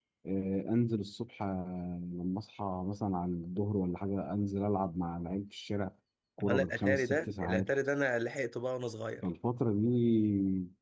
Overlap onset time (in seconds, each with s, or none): 6.4 s